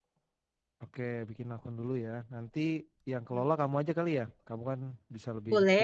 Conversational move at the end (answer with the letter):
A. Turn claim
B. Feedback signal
A